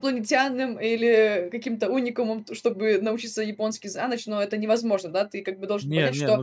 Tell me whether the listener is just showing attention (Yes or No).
No